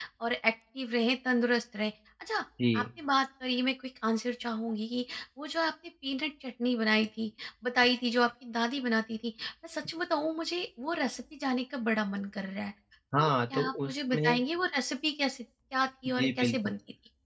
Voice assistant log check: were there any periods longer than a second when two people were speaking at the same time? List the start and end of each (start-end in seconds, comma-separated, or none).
13.2-14.4